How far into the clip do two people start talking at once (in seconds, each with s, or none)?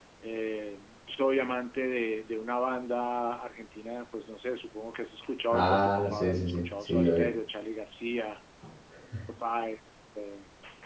5.5 s